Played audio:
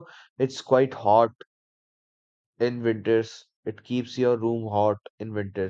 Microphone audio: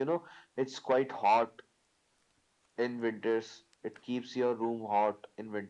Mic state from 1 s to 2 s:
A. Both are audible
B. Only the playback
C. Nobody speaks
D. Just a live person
B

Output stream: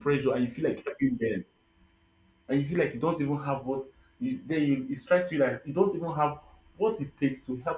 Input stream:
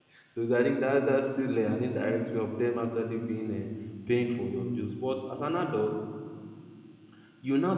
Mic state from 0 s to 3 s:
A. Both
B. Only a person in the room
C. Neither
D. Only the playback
B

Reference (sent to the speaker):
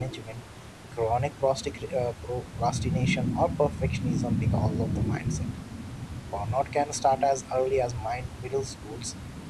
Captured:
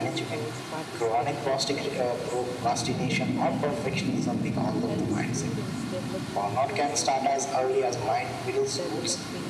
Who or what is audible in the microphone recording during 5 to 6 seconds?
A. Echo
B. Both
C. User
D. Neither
B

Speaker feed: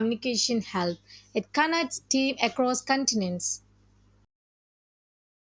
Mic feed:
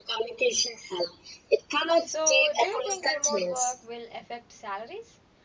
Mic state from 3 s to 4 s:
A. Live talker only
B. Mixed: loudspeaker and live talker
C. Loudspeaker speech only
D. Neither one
B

